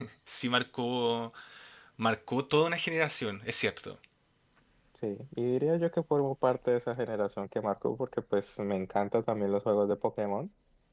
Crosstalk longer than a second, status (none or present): none